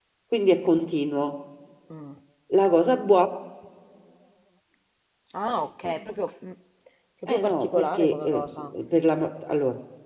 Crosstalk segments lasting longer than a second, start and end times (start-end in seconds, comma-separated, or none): 7.3-8.7